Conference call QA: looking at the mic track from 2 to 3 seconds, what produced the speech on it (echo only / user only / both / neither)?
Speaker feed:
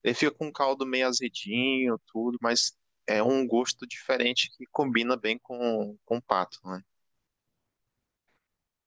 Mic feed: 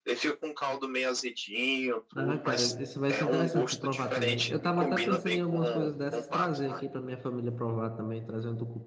both